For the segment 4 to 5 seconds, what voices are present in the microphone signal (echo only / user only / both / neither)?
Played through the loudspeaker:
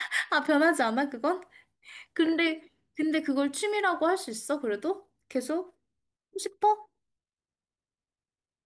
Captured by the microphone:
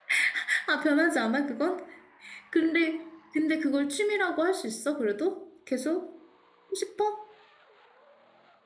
echo only